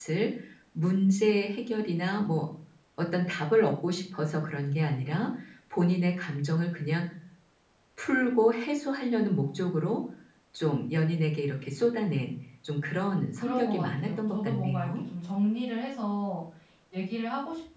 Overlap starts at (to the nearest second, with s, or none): 13 s